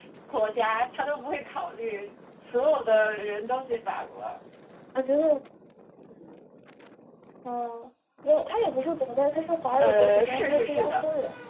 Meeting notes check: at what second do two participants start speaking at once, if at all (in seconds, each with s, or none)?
9.8 s